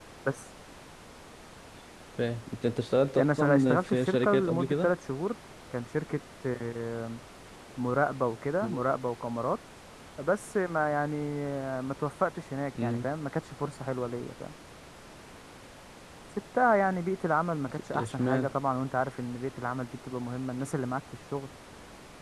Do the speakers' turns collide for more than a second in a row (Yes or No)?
Yes